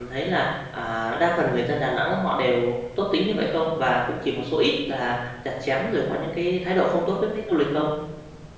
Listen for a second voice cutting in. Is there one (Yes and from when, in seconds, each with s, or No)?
No